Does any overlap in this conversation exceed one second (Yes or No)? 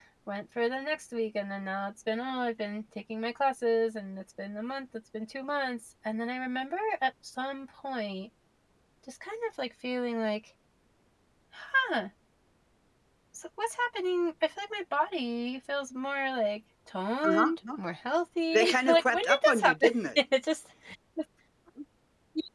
Yes